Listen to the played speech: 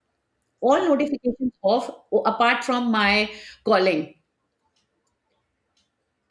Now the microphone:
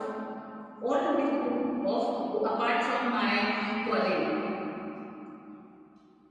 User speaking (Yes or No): No